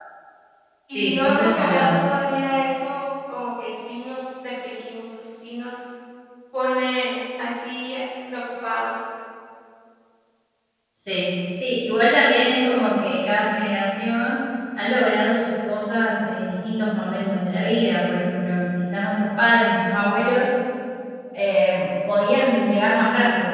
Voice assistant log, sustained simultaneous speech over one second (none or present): present